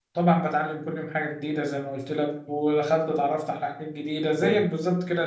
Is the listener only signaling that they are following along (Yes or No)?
Yes